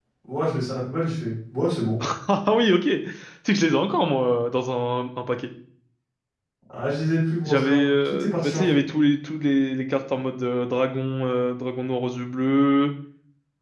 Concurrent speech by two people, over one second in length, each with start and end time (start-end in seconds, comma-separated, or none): 7.4-8.8